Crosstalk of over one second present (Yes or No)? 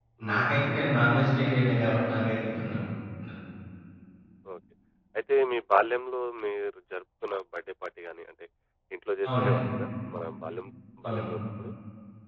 No